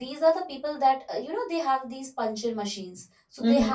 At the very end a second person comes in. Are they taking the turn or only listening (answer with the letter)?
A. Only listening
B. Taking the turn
A